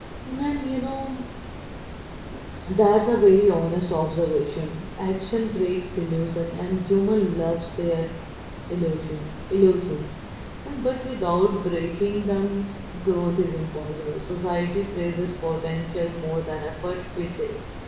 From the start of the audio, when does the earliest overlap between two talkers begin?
none

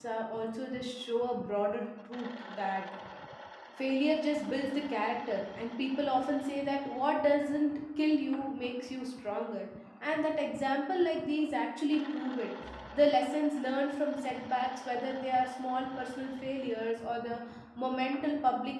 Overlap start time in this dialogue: none

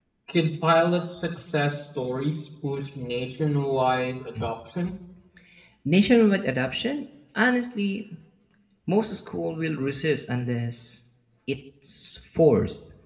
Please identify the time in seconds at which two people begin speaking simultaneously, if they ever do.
none

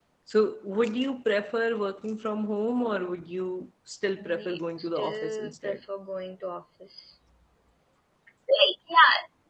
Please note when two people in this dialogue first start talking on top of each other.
4 s

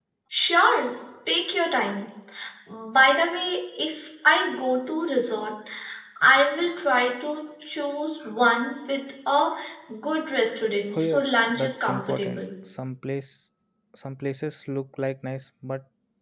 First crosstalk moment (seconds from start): 11 s

